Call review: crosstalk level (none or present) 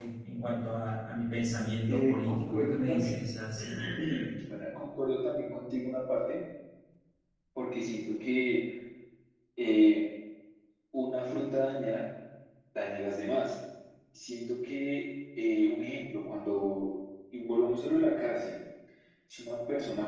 present